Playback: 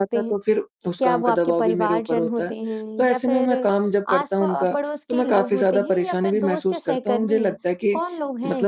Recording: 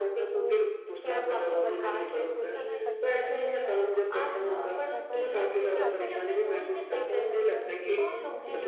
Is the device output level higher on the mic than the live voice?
Yes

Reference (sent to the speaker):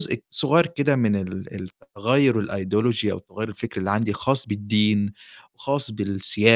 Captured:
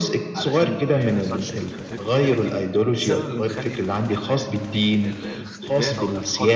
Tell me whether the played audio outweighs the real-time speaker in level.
Yes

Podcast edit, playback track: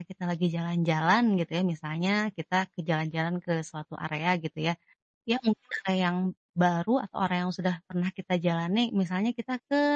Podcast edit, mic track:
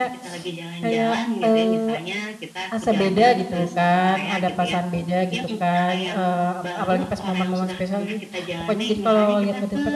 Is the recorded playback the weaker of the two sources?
Yes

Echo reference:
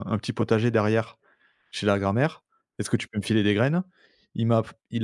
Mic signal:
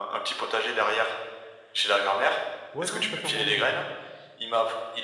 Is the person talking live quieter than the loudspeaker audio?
Yes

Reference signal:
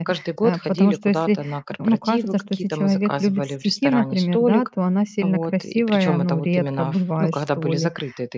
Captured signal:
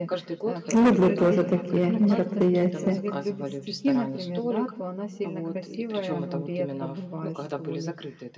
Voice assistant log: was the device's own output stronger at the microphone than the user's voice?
No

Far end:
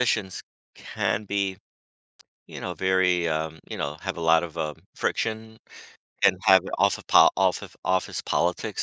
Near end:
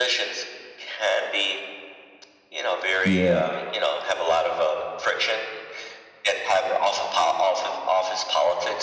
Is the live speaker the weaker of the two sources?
No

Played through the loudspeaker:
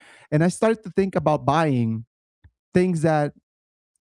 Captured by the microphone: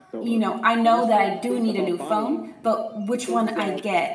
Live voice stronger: Yes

